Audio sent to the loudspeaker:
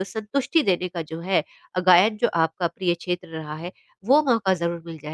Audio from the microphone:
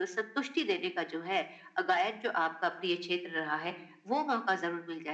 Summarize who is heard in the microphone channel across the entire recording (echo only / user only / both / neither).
echo only